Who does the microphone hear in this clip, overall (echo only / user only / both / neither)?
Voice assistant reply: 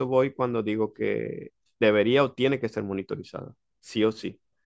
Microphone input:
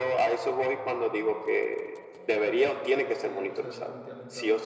both